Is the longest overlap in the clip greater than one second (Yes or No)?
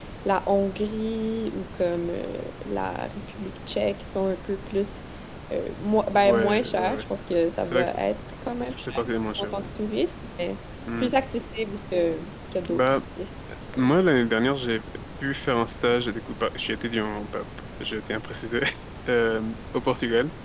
Yes